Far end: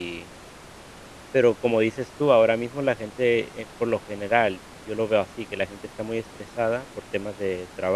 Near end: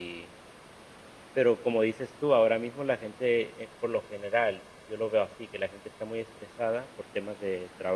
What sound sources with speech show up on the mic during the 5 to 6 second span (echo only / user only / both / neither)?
echo only